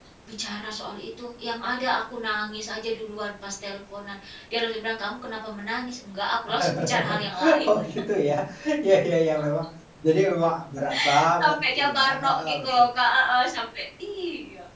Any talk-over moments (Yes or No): Yes